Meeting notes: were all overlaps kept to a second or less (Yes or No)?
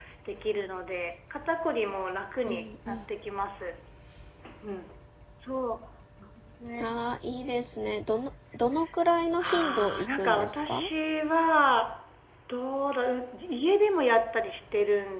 No